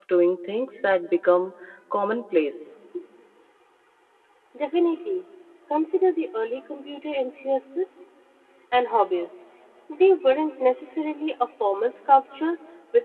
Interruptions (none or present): none